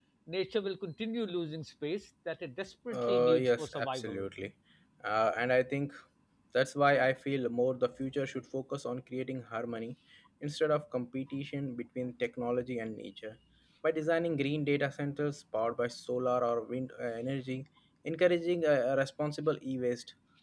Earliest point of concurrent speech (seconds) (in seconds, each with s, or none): 2.9 s